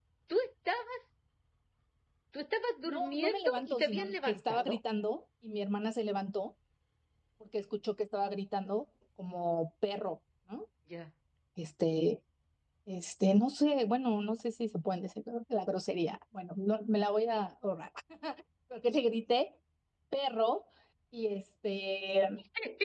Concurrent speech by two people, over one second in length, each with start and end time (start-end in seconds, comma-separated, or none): 2.9-4.8